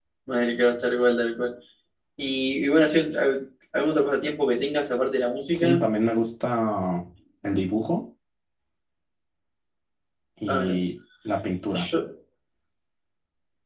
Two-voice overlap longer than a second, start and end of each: none

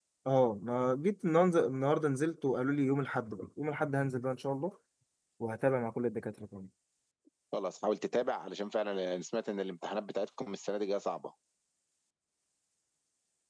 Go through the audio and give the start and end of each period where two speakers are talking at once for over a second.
none

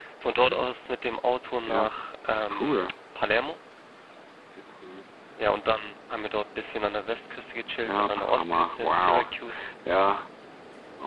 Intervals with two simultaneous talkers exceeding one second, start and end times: 7.8-9.2

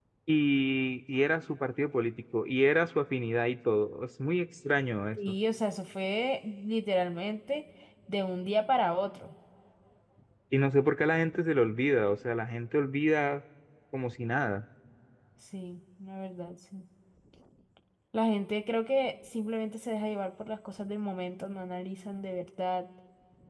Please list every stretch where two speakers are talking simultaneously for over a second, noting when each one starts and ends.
none

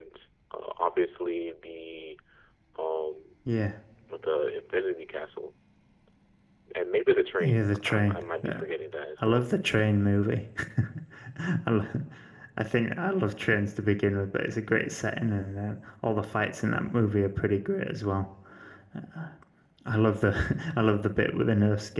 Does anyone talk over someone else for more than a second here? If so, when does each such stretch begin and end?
7.4-8.6

